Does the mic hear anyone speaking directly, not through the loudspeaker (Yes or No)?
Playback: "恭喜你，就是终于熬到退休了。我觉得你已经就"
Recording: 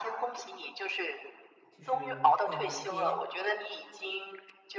Yes